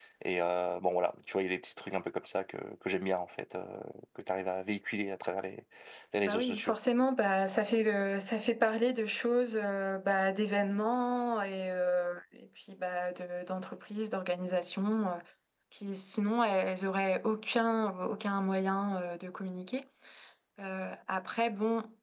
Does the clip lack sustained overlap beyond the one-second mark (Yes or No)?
Yes